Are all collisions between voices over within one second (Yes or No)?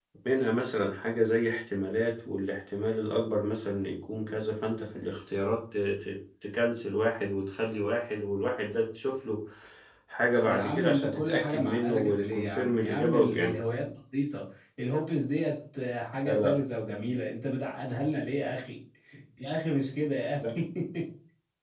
No